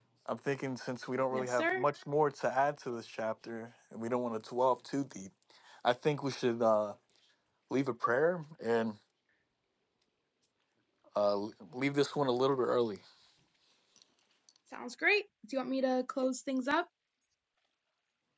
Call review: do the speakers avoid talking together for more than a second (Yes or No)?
Yes